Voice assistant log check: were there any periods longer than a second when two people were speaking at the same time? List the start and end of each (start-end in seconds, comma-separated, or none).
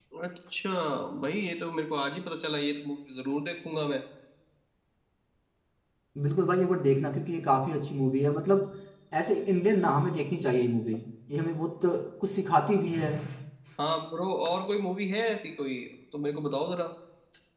none